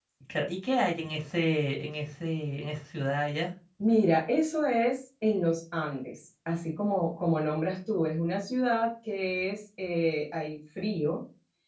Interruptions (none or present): none